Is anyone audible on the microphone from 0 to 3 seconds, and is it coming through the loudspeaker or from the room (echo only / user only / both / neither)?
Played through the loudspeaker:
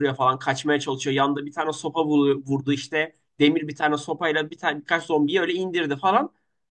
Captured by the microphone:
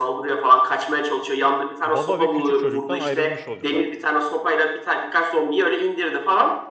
both